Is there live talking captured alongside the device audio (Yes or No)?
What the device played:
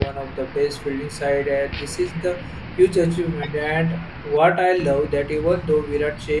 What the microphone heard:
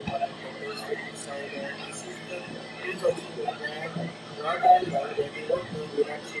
No